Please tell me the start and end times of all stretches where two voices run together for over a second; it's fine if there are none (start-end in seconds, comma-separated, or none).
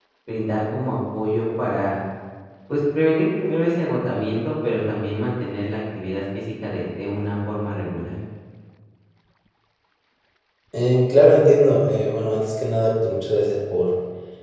none